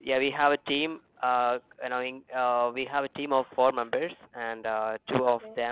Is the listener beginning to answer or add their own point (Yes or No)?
No